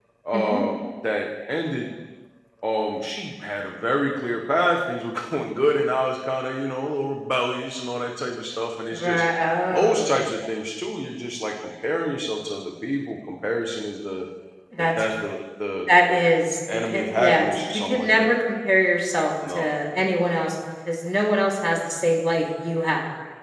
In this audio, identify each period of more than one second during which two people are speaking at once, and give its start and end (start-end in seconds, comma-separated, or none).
16.7-18.3